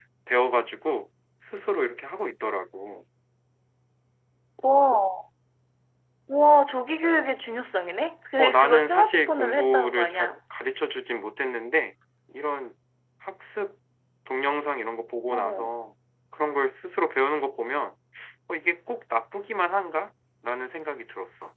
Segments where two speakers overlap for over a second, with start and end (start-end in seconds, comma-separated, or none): 8.4-10.4